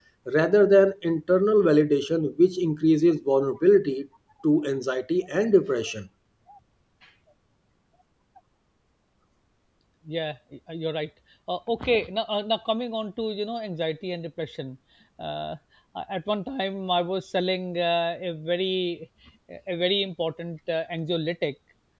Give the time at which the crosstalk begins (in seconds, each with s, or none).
none